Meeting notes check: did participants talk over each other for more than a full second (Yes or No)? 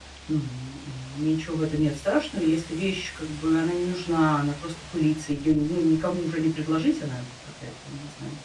No